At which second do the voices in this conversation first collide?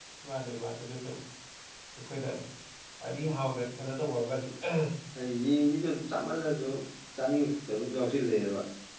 none

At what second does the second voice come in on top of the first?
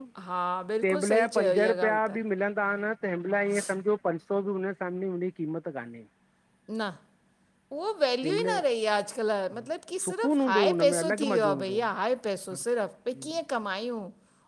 0.8 s

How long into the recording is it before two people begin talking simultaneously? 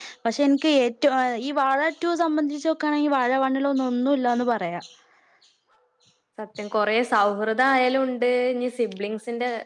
none

